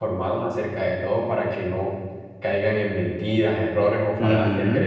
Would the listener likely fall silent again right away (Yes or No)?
Yes